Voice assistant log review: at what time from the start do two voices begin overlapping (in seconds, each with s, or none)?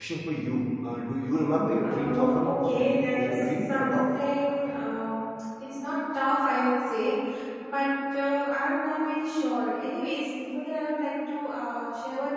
1.8 s